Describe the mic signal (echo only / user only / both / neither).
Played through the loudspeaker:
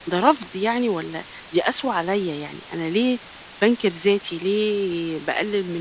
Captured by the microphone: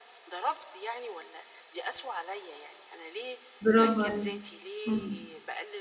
both